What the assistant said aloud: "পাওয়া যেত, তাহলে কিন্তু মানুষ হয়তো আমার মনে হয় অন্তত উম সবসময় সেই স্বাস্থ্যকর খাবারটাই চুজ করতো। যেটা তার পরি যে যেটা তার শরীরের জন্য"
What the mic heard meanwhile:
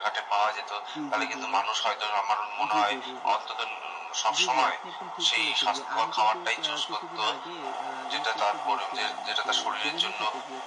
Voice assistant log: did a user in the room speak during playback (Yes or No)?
Yes